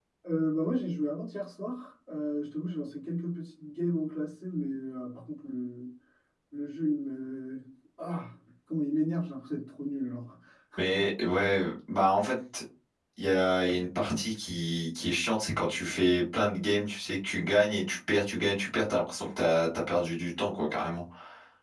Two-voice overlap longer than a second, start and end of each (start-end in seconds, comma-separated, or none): none